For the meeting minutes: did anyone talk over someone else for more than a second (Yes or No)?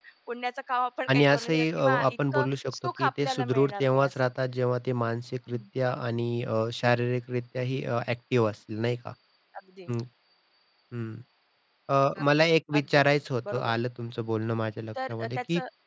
Yes